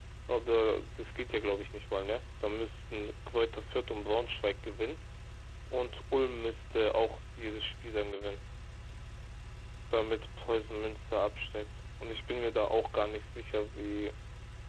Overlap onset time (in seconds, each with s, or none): none